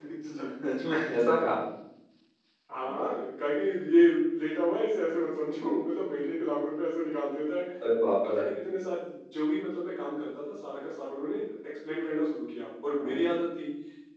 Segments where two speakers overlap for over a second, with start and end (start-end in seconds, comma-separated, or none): none